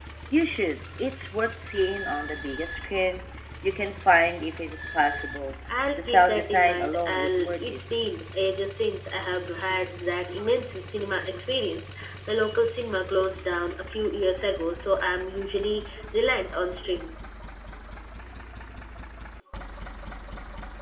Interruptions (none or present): present